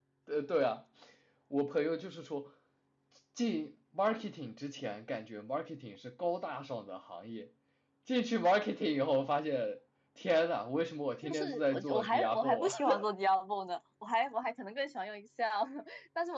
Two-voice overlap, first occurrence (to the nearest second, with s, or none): 11 s